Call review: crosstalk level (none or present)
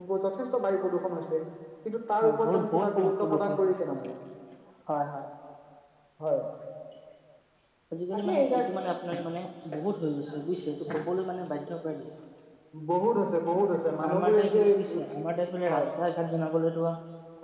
present